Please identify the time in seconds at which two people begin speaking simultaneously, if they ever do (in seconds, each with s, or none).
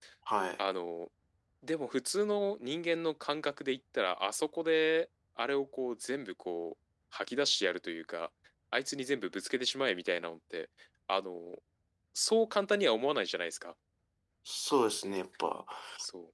none